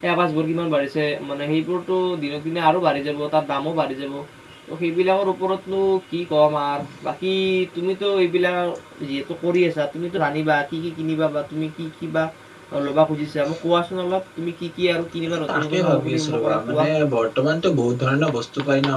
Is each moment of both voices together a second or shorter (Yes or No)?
No